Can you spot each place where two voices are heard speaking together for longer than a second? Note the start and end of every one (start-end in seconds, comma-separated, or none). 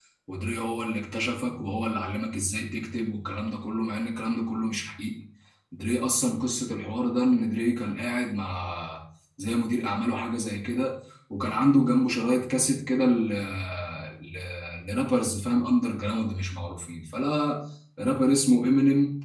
none